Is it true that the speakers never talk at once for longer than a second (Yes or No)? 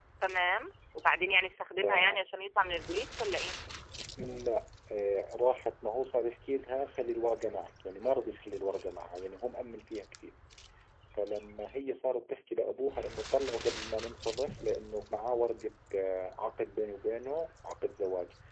Yes